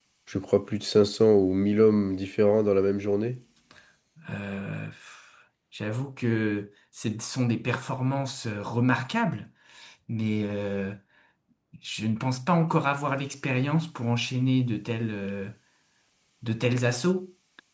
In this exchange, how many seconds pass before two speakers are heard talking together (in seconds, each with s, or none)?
none